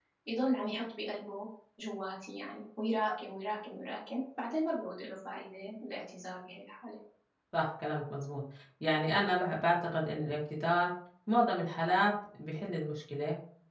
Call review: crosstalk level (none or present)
none